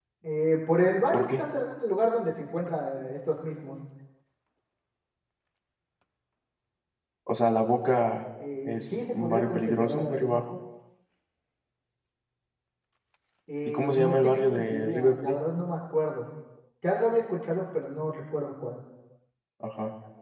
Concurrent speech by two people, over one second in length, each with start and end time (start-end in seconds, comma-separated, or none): 8.7-10.4, 13.7-15.3